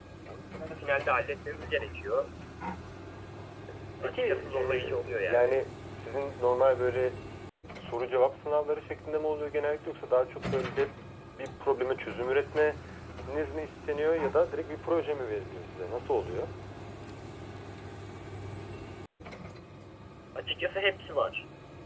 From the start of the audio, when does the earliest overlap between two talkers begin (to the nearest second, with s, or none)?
4 s